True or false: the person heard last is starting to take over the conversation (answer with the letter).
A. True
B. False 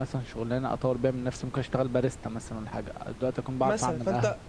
A